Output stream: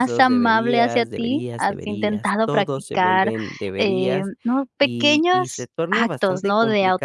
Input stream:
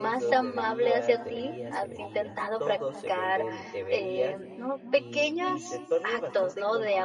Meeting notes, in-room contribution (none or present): none